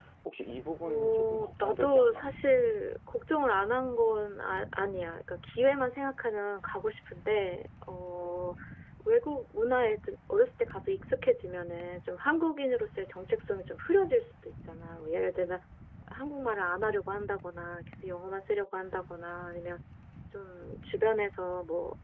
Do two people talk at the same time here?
Yes, from 0.8 s

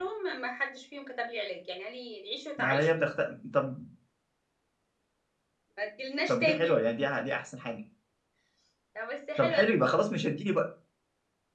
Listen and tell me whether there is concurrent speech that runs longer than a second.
No

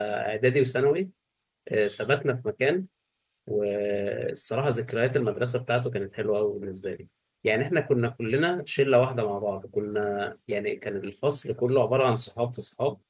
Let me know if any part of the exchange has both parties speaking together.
No

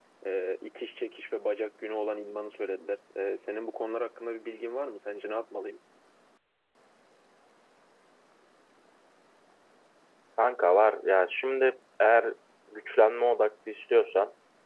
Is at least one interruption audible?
No

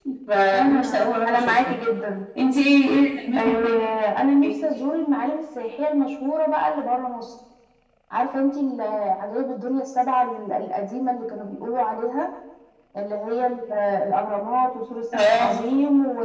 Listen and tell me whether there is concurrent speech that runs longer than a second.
Yes, from 0.5 s

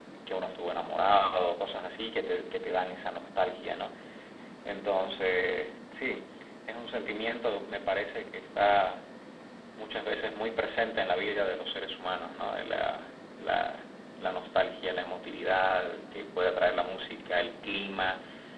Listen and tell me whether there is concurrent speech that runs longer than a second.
No

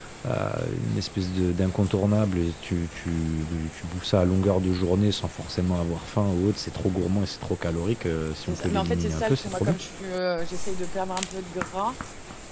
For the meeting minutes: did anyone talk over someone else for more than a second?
Yes, from 8.5 s

